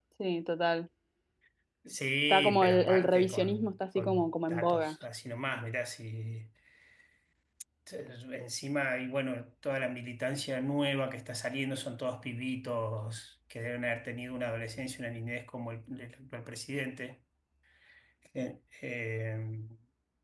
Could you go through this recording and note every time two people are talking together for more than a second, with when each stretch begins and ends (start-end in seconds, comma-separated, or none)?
2.3-5.0